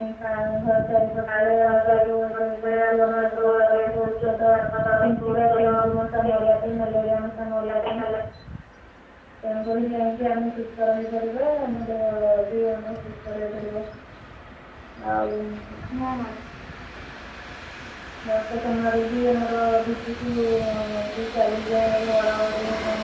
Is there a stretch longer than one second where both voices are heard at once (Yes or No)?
Yes